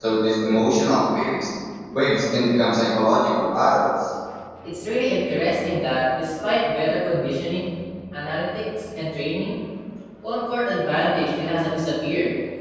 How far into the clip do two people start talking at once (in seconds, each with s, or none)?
none